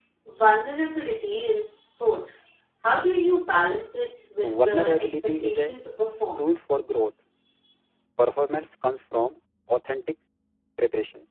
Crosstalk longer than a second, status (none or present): present